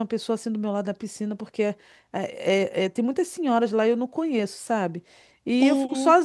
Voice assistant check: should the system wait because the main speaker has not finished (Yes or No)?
Yes